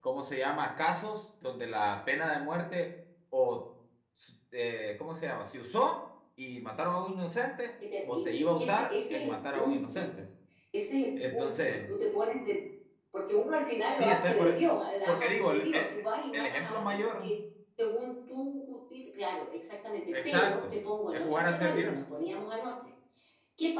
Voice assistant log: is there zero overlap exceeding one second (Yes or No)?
No